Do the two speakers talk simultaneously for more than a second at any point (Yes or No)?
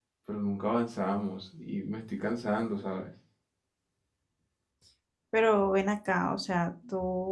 No